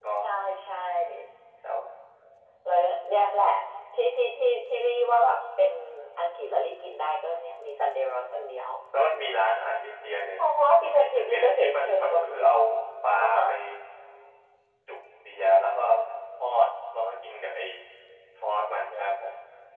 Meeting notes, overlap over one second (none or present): present